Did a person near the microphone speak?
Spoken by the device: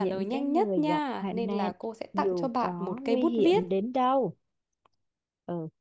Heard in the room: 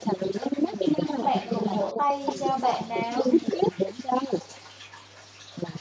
Yes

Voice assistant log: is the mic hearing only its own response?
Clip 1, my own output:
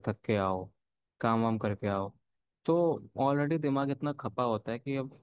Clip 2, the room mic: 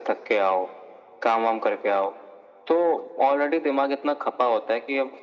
Yes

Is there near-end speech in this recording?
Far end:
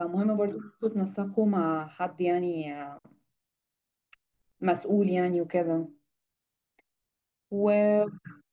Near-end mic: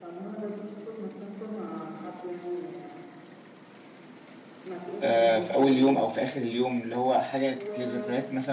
Yes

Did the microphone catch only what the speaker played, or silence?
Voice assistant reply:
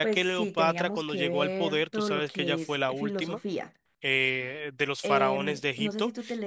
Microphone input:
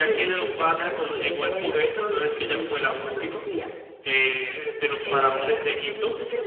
No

